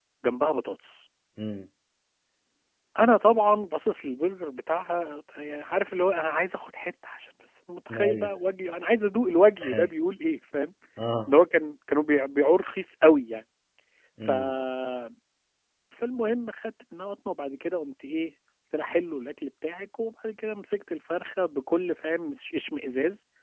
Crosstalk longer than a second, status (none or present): none